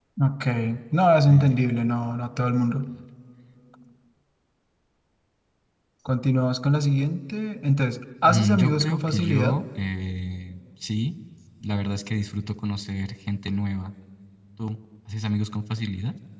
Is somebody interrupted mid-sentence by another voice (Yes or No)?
Yes